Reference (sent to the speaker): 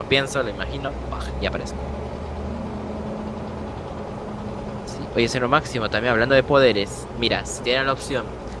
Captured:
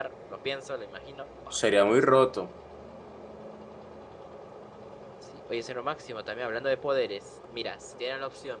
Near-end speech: present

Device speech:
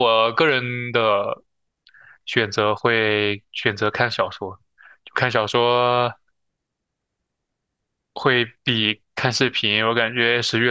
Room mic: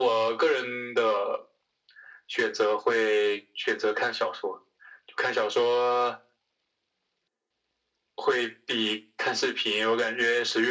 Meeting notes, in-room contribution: none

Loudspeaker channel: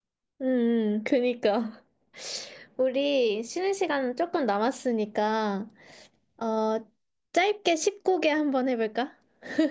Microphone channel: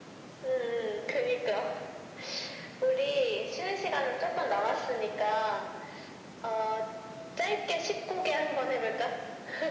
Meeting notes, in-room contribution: none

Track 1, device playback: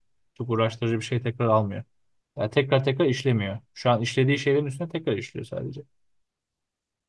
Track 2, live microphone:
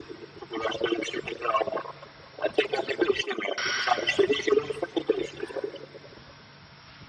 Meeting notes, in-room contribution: none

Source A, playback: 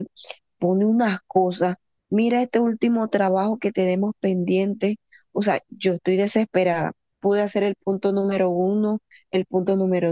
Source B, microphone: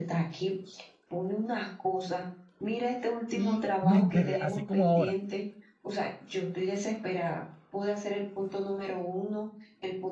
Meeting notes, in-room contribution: present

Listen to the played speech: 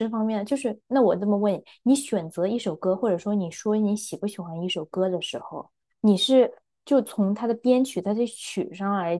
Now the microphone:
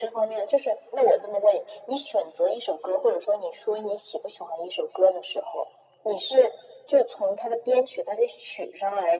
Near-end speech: none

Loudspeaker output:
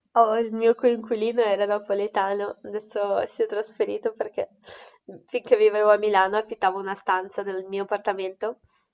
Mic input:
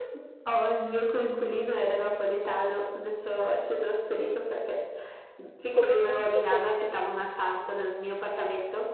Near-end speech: present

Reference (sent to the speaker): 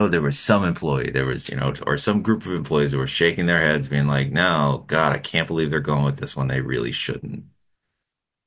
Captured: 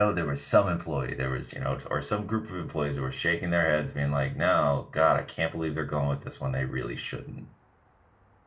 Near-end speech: none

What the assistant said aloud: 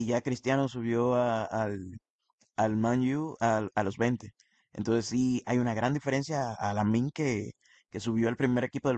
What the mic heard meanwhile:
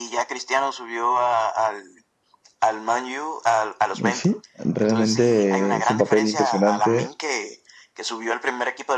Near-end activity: present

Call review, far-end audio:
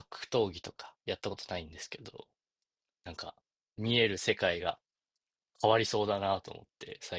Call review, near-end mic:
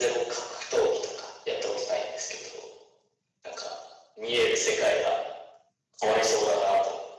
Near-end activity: none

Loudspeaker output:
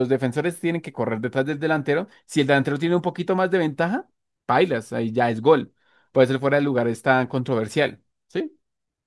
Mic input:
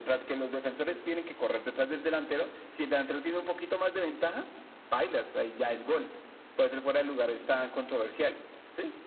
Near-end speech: none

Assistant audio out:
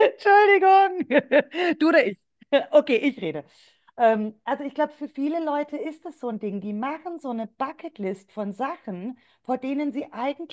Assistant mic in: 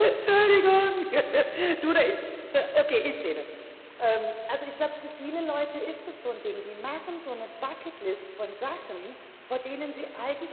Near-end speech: none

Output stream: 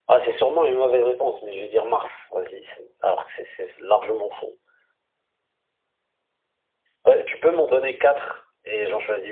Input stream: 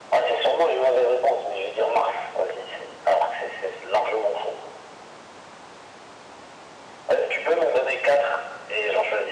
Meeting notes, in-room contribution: none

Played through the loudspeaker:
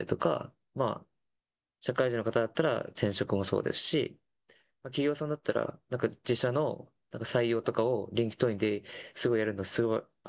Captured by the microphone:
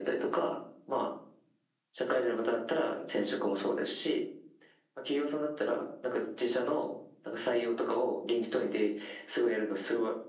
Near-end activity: none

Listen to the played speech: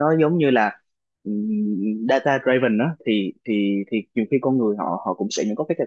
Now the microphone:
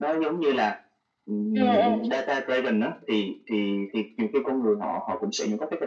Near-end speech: present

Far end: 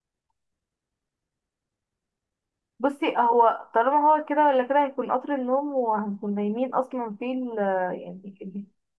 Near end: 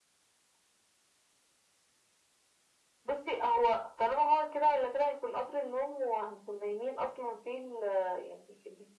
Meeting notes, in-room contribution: none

